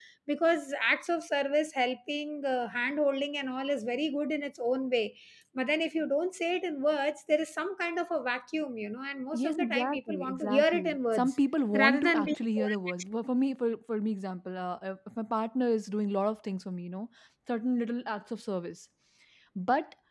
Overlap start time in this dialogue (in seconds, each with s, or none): 9.3 s